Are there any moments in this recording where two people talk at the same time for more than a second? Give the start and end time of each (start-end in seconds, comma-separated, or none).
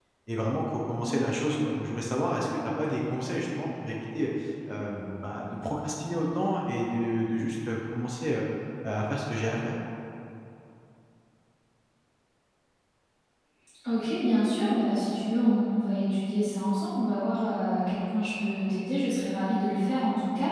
none